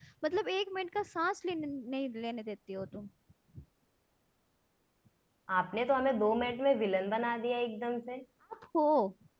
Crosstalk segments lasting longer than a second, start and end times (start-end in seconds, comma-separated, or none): none